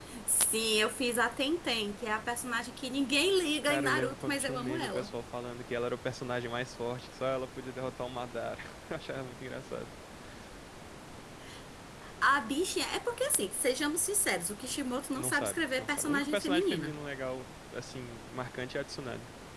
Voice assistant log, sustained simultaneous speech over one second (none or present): present